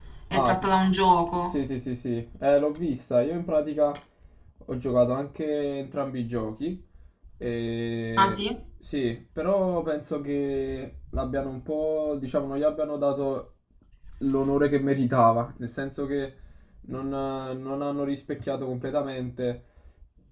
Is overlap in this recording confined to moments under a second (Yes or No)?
Yes